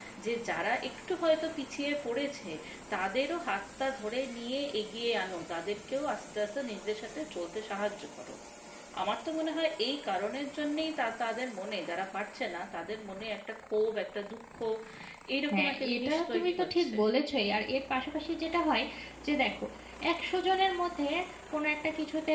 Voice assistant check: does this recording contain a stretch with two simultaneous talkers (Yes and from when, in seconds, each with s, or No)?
Yes, from 15.5 s